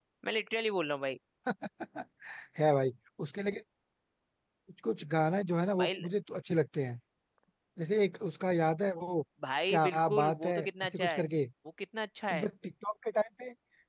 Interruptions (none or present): present